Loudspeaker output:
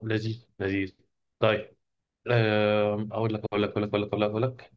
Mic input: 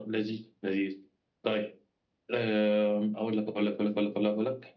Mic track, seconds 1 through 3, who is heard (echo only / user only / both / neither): echo only